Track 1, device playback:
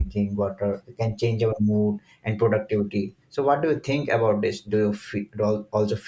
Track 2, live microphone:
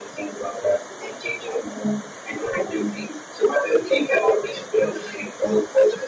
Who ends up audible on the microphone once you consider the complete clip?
echo only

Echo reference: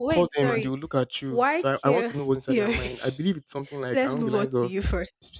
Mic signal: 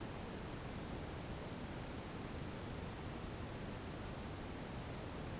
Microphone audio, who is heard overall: neither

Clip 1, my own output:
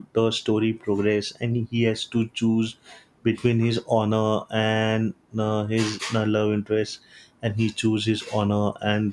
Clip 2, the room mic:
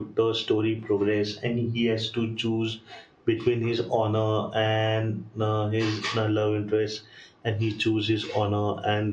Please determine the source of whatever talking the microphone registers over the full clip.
echo only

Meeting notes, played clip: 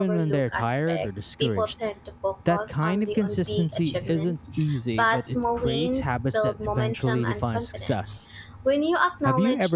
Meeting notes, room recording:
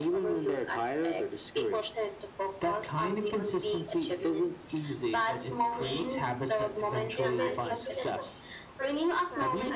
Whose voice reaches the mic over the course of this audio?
both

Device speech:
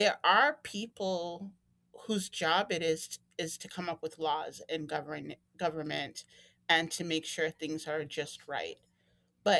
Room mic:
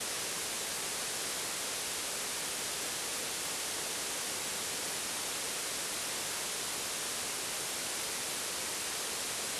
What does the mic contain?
neither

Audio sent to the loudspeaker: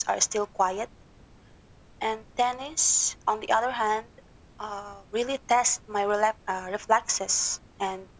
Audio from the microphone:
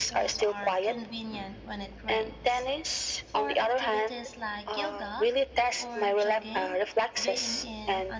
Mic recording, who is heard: both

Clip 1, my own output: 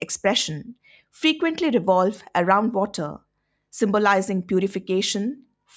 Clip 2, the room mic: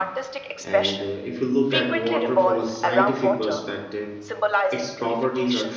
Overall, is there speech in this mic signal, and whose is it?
both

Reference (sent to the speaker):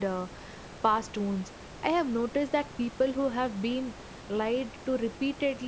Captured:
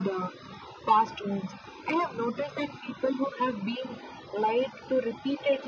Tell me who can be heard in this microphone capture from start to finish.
echo only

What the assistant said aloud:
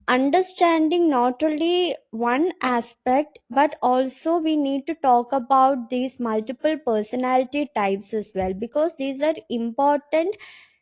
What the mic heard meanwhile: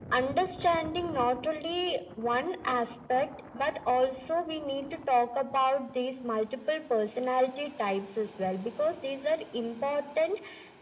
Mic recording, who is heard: echo only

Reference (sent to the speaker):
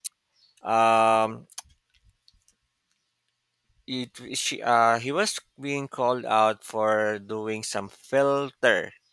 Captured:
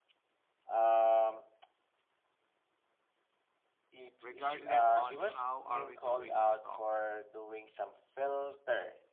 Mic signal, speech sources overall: both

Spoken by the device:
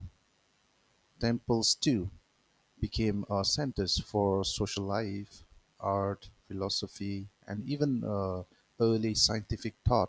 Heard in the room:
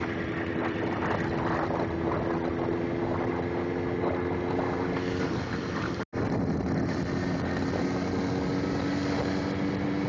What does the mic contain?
neither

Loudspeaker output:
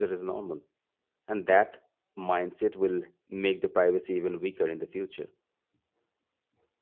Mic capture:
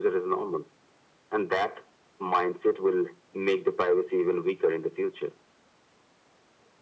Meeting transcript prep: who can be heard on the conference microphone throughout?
echo only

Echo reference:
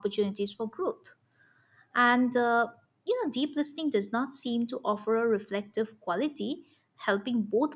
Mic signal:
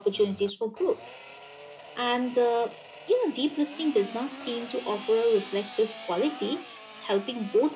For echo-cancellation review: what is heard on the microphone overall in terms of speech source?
echo only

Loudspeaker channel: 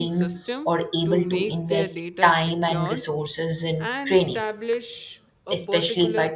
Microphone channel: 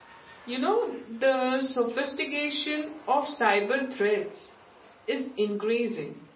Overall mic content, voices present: user only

